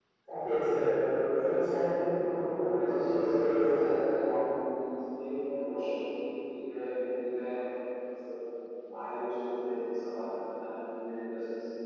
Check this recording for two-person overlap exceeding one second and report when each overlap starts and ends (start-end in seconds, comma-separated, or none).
2.6-4.3